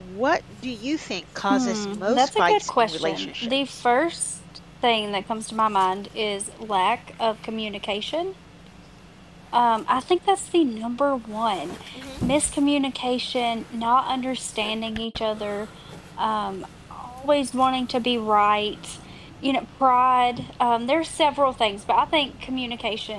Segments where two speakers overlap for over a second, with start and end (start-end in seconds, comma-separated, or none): 1.5-3.8